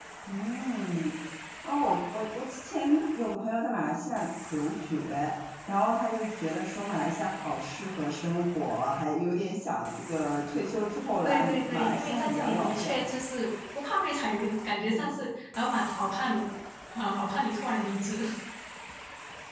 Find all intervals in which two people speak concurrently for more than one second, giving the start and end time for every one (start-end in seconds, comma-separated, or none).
11.2-13.0